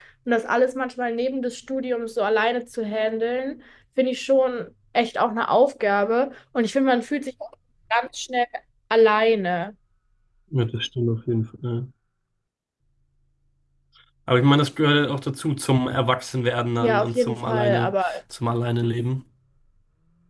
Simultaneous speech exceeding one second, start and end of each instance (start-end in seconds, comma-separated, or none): 16.8-18.2